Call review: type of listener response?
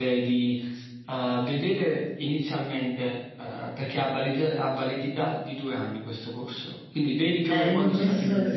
taking over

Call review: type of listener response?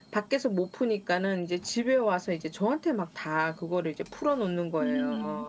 taking over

